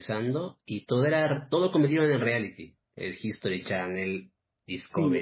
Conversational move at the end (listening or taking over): taking over